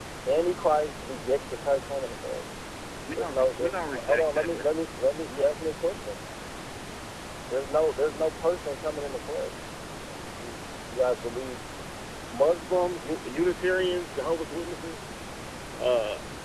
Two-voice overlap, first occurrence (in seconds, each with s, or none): 3.1 s